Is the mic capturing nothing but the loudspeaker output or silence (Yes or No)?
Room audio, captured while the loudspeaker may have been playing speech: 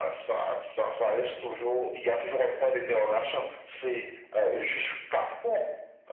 Yes